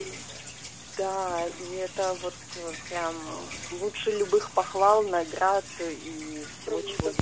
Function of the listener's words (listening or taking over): taking over